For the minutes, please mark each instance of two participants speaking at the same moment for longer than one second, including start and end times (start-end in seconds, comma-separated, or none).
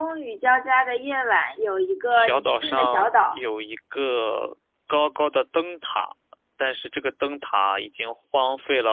2.1-3.4